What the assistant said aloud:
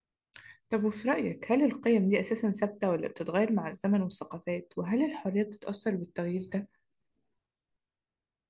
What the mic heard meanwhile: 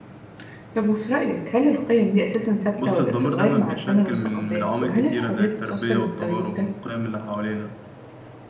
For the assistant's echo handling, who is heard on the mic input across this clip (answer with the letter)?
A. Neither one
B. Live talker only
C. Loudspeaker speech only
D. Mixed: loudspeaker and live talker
D